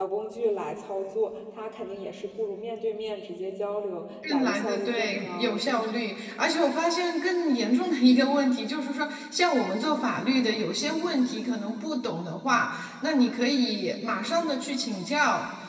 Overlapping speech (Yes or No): Yes